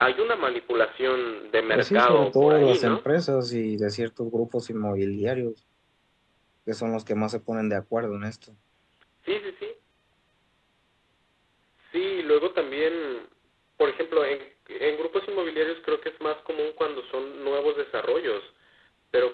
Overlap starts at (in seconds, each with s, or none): 1.7 s